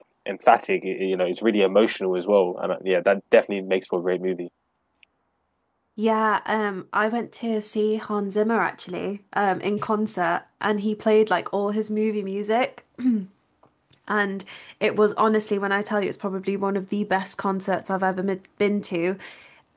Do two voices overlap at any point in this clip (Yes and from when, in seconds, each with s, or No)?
No